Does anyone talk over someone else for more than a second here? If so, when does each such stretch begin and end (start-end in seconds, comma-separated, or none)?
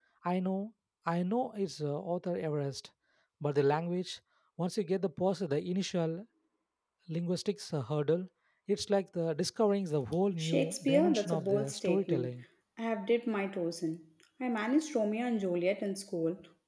10.4-12.3